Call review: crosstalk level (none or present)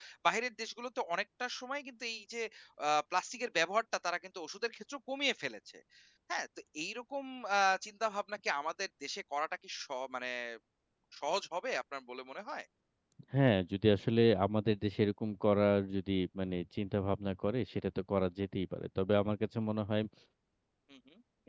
none